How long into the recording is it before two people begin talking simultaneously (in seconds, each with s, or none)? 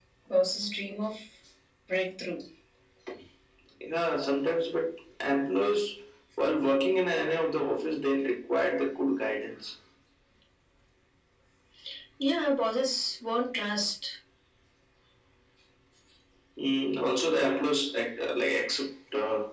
none